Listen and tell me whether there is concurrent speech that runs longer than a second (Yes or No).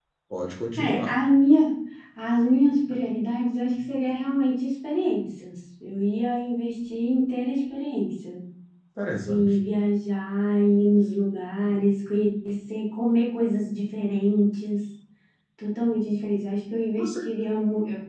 No